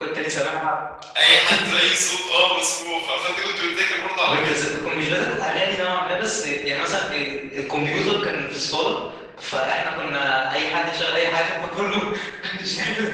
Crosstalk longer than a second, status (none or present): none